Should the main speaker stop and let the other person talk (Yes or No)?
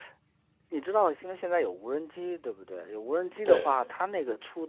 No